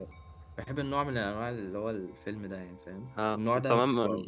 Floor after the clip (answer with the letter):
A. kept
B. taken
B